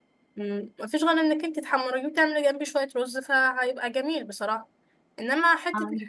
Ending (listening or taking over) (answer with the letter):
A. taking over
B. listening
B